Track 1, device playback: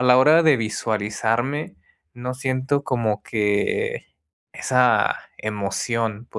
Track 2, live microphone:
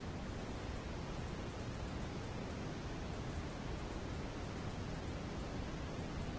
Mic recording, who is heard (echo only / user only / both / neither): neither